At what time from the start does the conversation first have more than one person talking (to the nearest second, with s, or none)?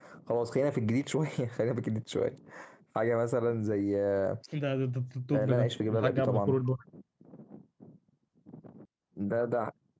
5 s